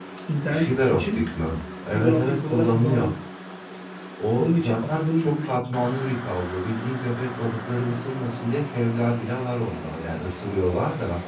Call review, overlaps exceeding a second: present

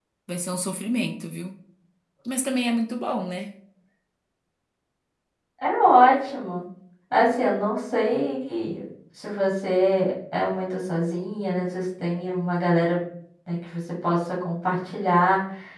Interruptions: none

